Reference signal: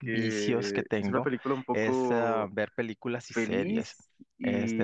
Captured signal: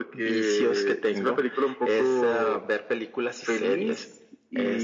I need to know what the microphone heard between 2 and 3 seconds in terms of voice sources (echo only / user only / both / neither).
echo only